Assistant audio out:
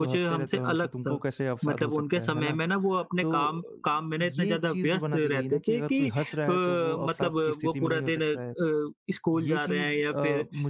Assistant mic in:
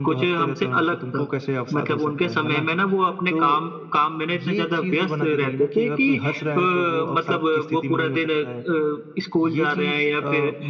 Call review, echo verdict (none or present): present